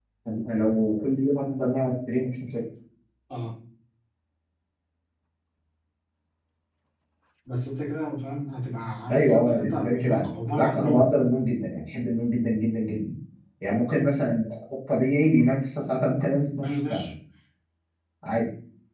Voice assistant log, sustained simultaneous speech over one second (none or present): present